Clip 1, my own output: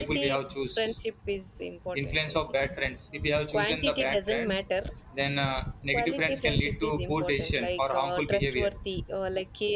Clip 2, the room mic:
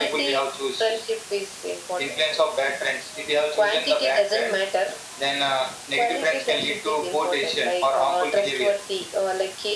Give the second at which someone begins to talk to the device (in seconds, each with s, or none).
none